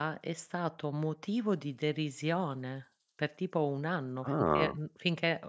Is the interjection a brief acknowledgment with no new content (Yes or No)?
Yes